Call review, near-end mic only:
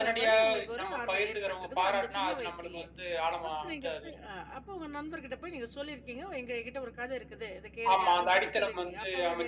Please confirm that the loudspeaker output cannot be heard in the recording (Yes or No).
No